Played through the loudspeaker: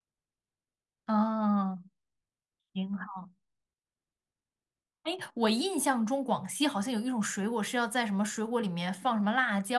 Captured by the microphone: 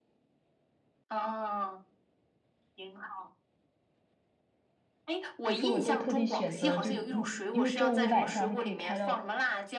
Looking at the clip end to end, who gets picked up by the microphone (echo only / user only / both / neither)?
both